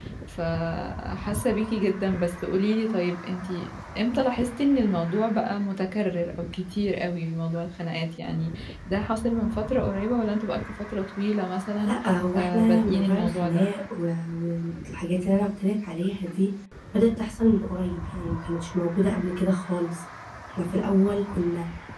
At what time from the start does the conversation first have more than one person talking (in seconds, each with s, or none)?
12.4 s